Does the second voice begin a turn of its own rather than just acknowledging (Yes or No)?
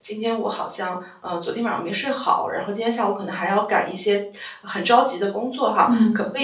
No